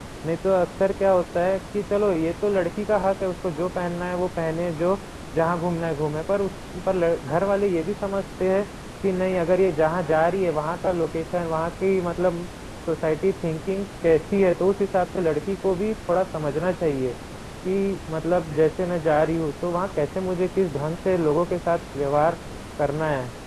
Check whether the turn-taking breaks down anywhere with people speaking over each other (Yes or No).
No